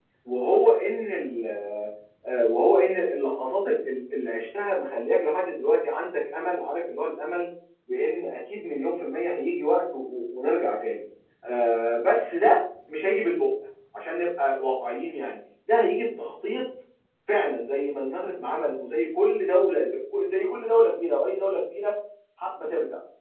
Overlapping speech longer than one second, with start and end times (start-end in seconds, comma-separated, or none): none